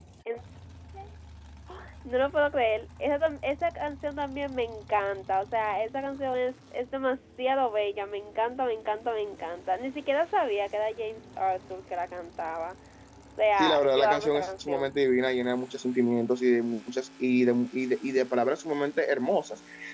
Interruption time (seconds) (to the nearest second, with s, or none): 14 s